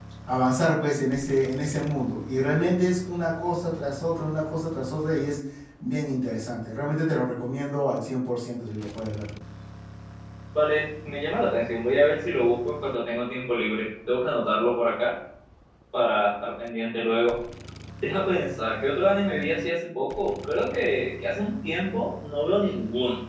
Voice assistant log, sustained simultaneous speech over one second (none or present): none